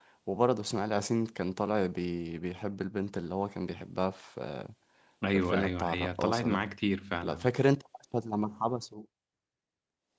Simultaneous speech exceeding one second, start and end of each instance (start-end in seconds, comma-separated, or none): 5.3-6.6